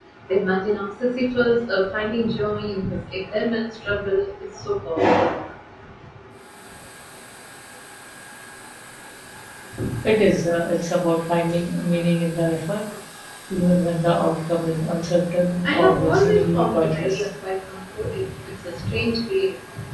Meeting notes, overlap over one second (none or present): present